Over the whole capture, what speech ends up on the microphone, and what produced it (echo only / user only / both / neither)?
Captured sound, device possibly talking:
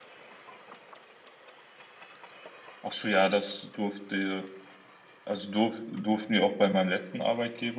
user only